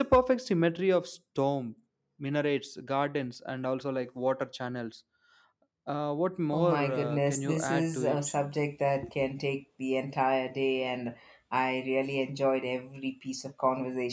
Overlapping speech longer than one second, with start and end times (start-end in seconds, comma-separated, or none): 6.5-8.3